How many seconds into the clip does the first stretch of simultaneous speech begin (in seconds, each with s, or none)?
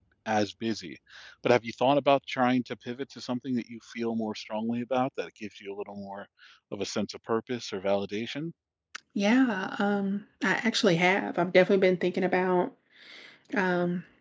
none